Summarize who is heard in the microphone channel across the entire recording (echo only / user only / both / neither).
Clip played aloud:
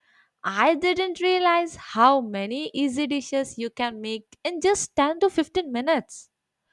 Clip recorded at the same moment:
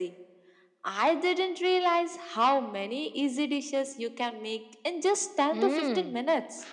both